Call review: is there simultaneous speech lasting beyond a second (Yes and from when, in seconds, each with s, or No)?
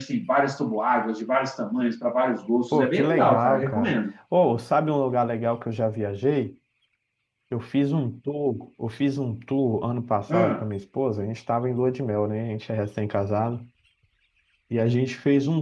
Yes, from 2.7 s